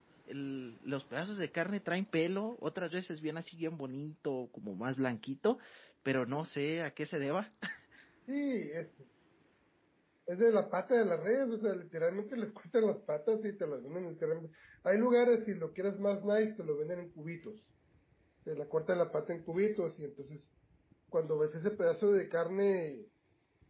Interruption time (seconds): none

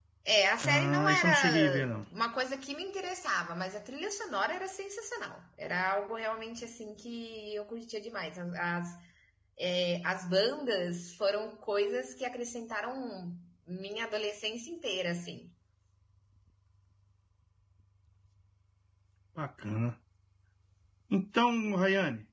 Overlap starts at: 0.6 s

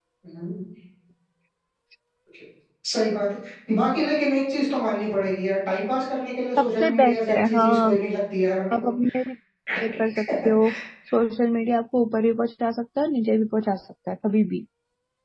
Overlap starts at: 6.6 s

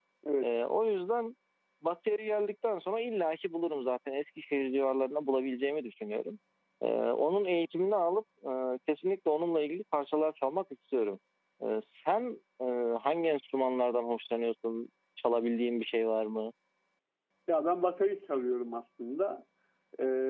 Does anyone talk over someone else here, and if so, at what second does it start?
none

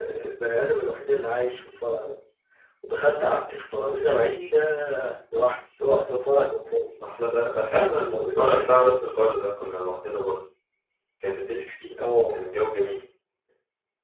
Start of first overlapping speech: 7.5 s

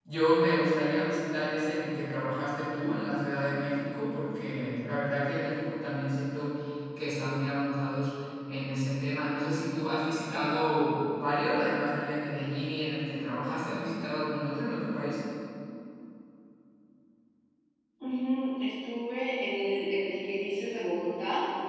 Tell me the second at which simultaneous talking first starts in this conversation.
none

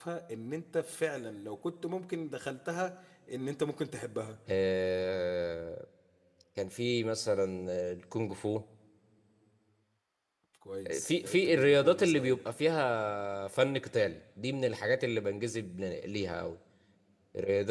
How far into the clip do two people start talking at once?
11.0 s

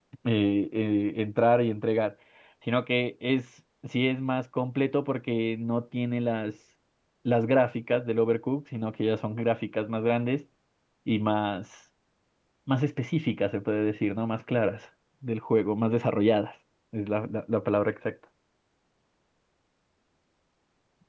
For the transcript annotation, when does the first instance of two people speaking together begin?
none

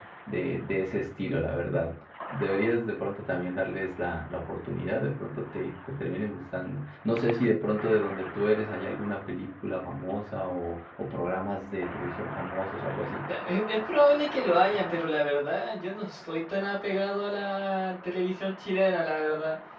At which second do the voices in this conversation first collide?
none

